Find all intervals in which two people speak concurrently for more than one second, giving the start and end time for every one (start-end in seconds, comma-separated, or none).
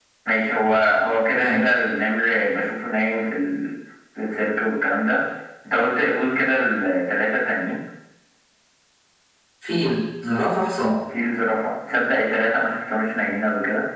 none